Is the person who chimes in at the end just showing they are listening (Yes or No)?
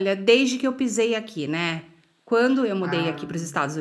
Yes